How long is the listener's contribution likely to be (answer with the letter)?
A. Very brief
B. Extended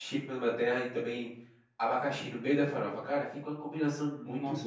B